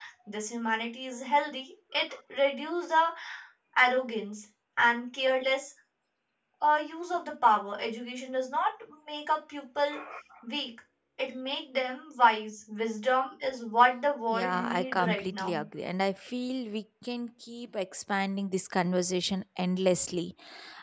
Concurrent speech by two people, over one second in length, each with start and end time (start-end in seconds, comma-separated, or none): 14.3-15.6